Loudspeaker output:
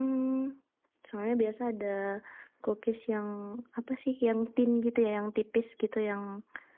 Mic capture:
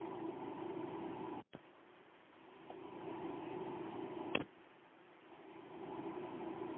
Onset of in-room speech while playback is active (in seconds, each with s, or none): none